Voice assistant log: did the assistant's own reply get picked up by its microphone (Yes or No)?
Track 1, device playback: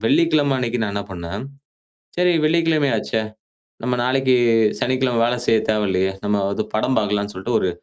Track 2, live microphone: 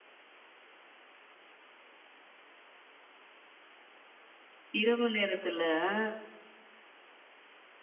No